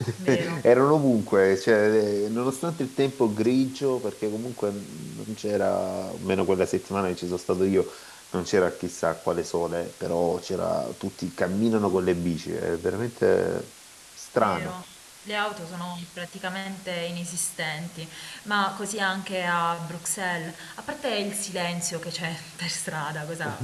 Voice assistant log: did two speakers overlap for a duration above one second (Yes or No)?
No